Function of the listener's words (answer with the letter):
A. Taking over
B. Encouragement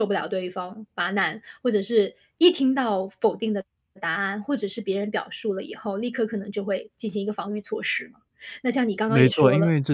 A